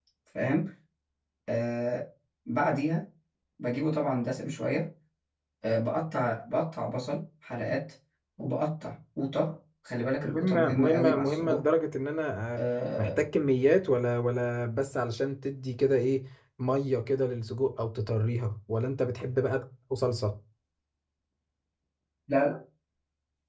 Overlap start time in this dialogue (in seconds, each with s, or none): 10.2 s